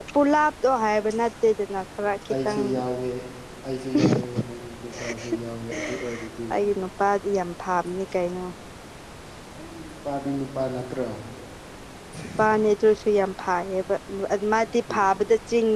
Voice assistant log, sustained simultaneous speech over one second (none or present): none